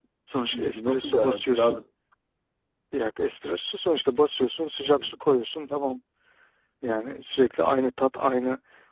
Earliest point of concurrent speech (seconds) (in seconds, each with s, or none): 0.5 s